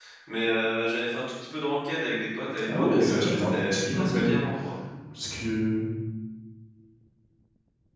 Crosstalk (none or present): present